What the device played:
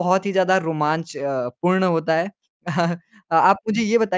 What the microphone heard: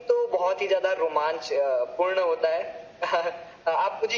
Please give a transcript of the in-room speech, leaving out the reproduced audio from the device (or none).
none